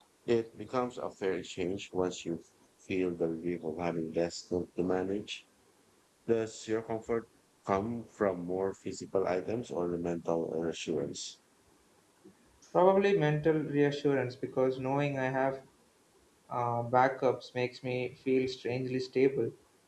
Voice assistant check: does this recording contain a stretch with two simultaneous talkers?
No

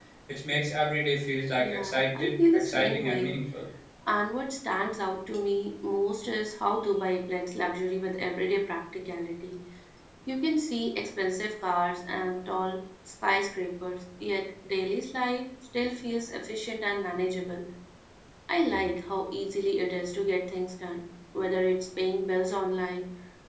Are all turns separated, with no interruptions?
No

